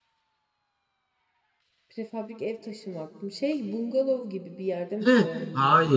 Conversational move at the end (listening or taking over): taking over